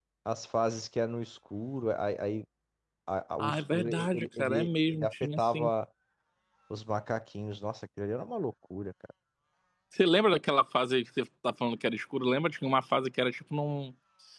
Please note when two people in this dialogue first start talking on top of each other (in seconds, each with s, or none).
3.4 s